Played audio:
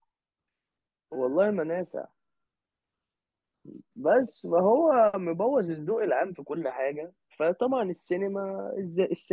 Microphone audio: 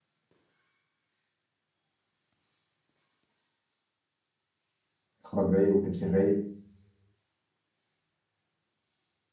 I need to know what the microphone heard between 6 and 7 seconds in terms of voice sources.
user only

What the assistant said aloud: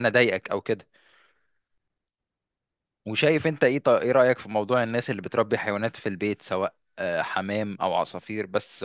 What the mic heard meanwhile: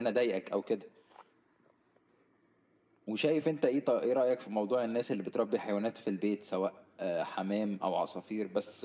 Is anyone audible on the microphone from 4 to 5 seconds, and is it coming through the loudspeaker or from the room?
echo only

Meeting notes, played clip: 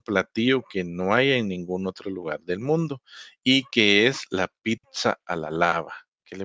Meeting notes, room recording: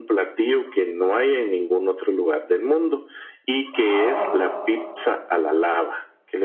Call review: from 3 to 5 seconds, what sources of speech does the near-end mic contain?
both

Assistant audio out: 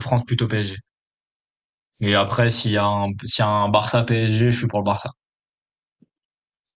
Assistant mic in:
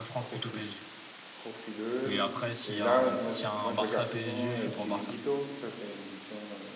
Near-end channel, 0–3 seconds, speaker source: both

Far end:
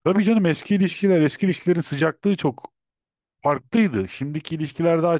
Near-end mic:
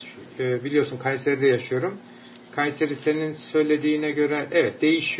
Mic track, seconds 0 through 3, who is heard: user only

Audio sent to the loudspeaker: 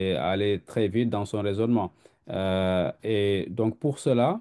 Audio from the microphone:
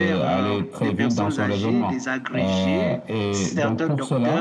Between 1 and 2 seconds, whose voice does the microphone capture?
both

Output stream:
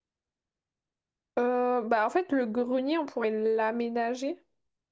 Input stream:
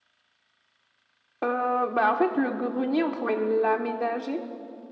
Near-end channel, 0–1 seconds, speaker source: neither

